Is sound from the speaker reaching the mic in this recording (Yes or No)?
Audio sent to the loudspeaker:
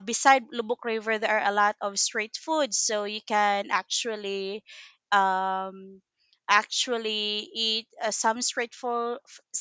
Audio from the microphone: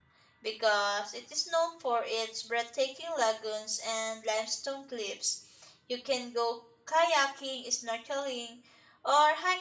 No